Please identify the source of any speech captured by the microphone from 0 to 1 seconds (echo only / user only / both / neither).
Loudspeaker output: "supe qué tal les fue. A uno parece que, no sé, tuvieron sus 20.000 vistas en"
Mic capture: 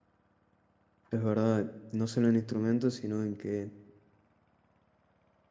neither